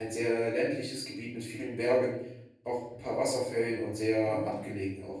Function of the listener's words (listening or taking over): taking over